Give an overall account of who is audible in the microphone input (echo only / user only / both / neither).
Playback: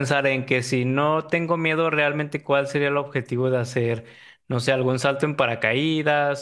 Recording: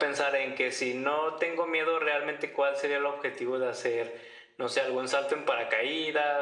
echo only